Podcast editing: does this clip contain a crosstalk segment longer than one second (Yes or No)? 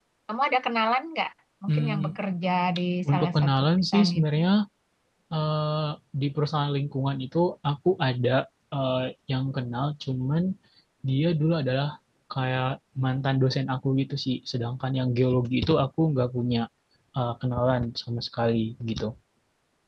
Yes